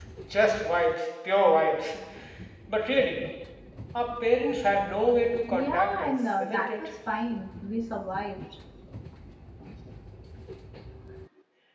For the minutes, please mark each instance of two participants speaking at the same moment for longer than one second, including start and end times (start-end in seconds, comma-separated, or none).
5.5-6.8